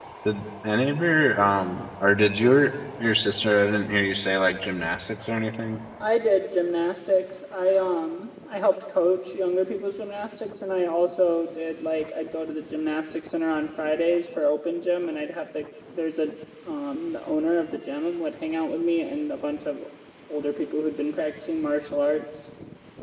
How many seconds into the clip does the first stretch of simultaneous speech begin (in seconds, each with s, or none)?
none